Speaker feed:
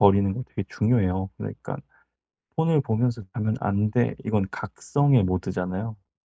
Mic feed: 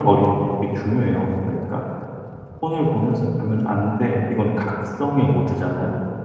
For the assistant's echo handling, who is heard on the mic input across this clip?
echo only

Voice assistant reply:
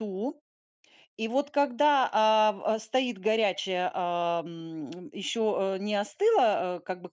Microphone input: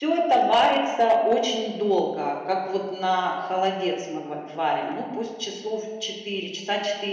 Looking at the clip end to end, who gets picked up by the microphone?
user only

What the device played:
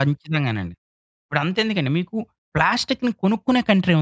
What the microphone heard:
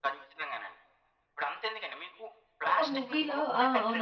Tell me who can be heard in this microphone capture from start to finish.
both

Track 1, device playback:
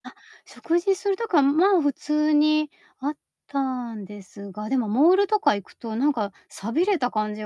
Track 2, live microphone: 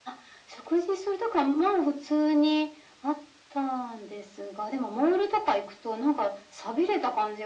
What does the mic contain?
echo only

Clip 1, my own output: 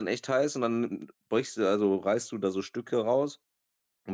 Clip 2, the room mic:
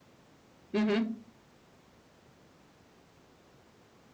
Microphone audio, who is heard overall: user only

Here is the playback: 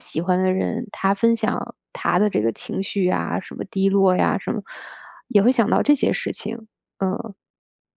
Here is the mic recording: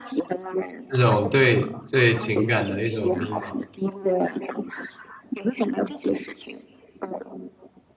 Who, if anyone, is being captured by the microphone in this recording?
both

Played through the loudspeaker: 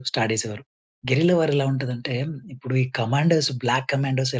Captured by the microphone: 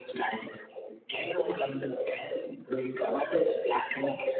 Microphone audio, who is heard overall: echo only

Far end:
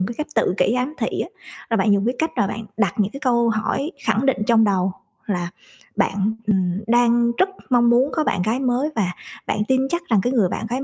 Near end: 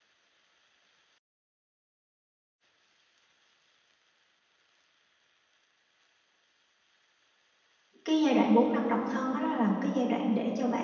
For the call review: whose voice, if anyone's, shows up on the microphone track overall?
user only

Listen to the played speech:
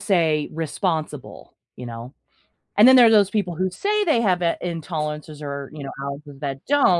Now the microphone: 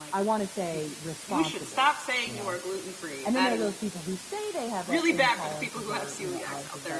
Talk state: both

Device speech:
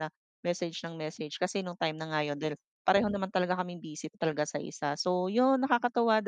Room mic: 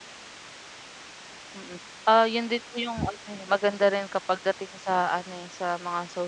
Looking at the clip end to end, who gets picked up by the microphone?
user only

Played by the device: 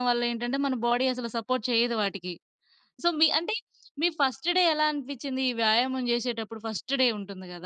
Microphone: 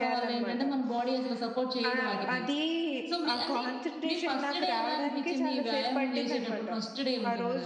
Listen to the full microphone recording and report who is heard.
both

